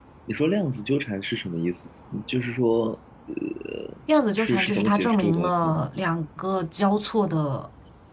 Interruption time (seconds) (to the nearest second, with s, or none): 4 s